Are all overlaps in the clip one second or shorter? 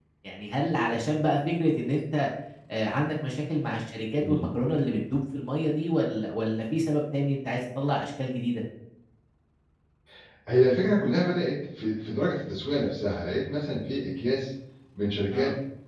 Yes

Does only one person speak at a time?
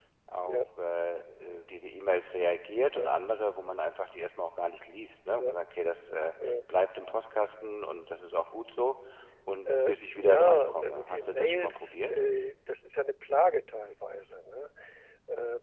No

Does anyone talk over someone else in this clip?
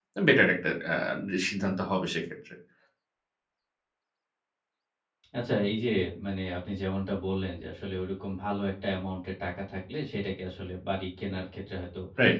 No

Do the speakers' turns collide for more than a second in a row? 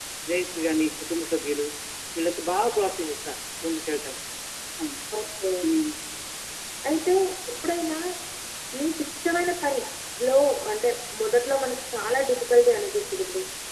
No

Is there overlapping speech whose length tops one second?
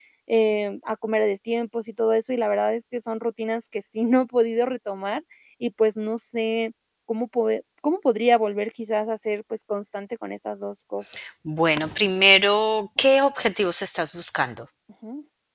No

